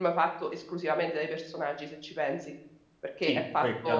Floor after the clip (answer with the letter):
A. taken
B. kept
A